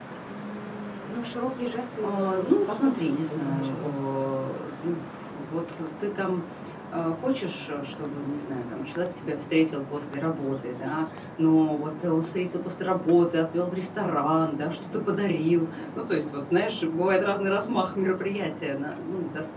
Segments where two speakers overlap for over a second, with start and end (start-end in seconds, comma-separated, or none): 2.0-4.0